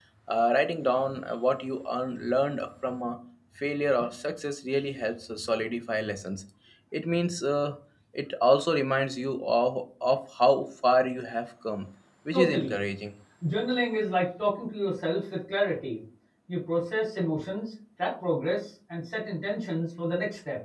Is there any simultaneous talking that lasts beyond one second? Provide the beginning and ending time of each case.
none

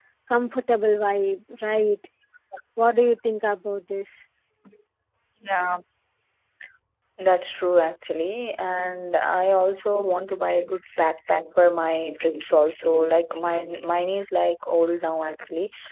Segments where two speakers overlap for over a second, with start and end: none

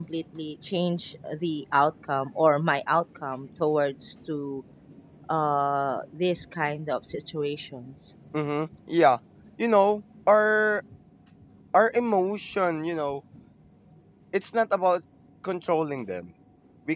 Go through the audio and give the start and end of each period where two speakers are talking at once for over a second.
none

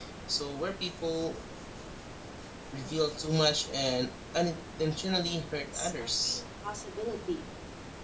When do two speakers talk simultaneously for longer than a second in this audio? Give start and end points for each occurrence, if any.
5.1-6.4

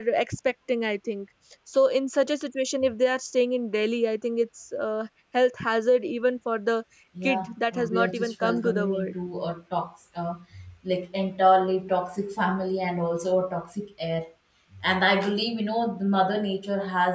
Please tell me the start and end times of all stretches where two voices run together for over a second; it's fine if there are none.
7.2-9.1

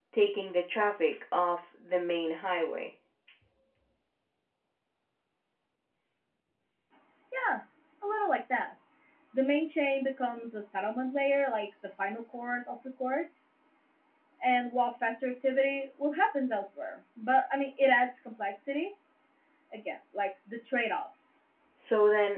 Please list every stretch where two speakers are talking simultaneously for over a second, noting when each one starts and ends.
none

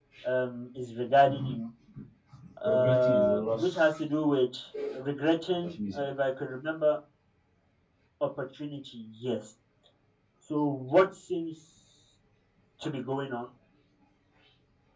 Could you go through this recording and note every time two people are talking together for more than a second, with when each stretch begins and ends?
2.6-3.9

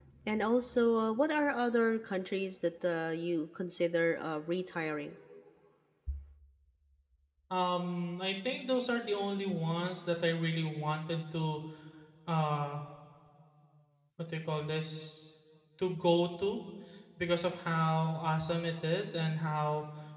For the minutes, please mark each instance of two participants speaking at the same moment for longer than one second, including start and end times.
none

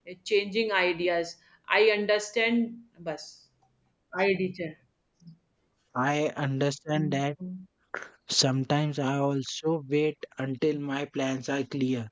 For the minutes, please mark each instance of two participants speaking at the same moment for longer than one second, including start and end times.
none

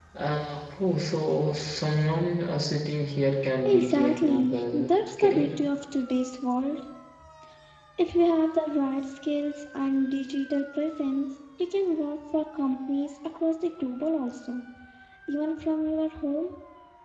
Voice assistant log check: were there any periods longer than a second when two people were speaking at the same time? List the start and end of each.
3.6-5.5

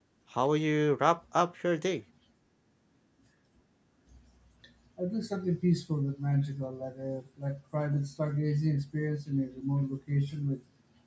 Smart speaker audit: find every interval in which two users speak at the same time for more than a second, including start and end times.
none

